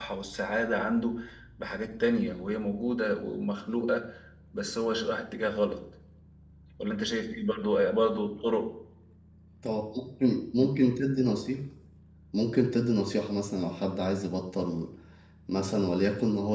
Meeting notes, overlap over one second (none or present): none